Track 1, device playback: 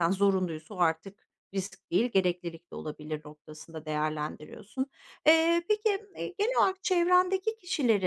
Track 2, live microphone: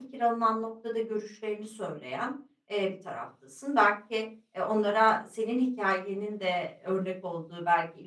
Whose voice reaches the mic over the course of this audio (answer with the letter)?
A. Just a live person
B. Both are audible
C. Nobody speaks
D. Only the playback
A